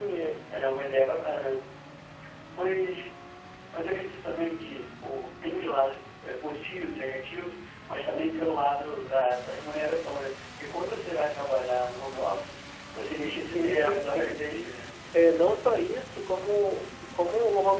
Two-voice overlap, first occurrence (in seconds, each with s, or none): 13.4 s